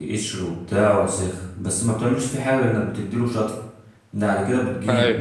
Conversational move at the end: listening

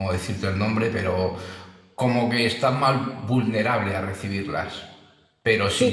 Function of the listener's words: listening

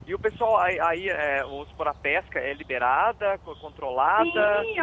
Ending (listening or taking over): taking over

